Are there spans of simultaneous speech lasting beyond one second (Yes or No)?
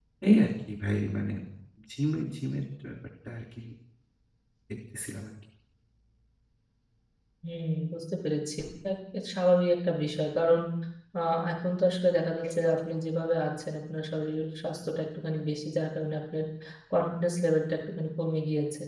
No